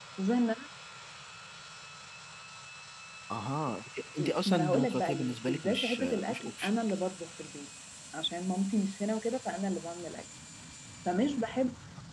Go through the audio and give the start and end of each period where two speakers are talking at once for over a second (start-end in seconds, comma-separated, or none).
4.5-6.7